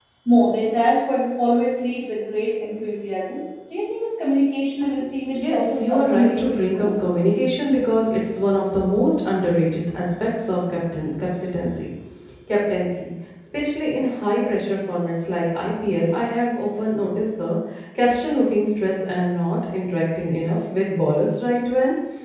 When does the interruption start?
5.2 s

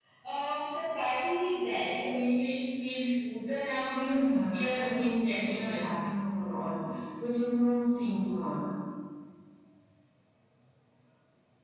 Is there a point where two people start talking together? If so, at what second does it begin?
3.9 s

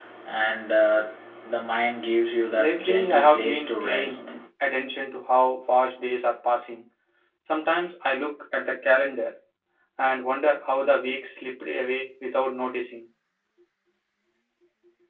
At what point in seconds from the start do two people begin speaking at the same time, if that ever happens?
2.6 s

